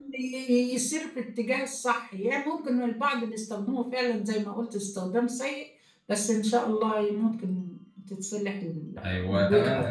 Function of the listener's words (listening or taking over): taking over